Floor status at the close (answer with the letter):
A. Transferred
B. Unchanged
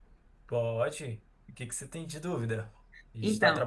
B